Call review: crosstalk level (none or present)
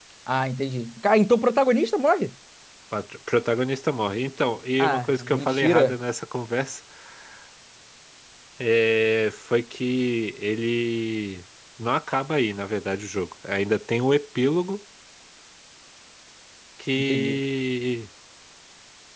present